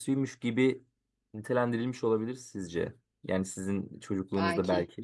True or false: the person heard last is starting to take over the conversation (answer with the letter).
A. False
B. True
A